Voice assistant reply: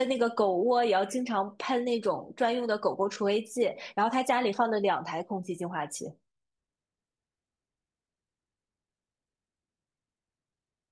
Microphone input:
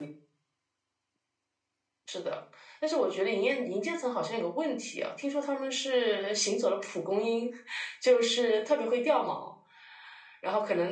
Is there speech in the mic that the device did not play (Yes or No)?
Yes